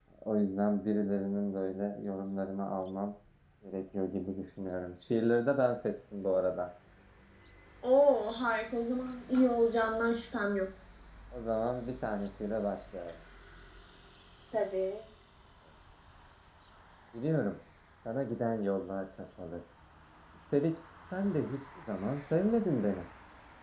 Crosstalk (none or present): none